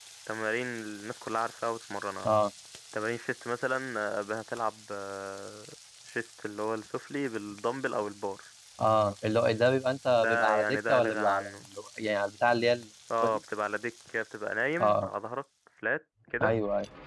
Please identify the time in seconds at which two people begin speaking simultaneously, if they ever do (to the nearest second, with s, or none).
10 s